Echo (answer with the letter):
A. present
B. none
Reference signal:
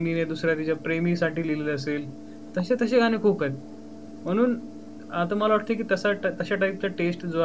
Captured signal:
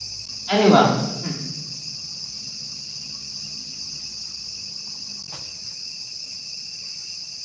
B